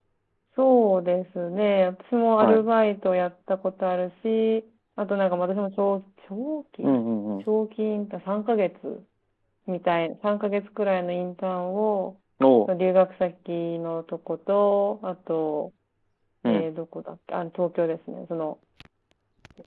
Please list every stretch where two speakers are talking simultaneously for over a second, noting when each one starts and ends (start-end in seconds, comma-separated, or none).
none